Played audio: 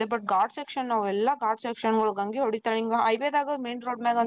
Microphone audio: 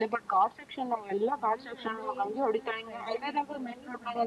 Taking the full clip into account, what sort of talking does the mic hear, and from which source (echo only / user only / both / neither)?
both